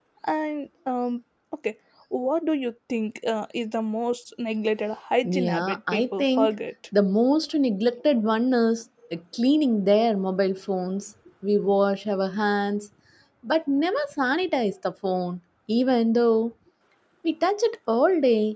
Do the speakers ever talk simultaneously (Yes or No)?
Yes